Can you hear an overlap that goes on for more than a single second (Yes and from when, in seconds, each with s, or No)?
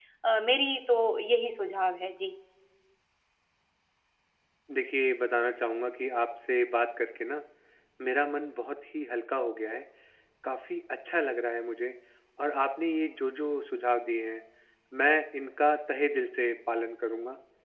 No